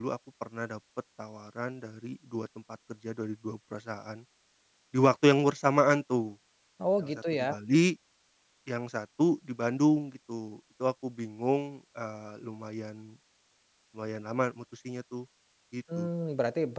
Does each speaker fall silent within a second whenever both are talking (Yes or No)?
Yes